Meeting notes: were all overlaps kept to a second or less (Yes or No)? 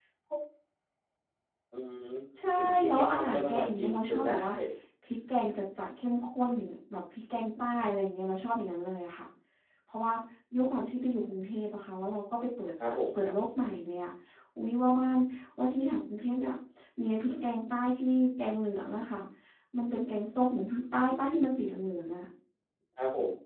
No